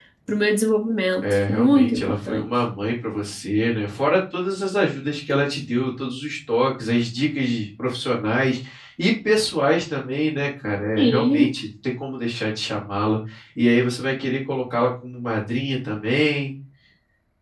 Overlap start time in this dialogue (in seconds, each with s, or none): 1.2 s